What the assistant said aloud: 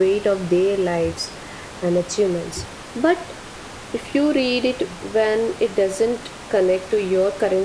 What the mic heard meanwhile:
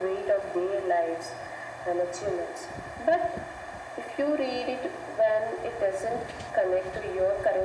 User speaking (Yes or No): No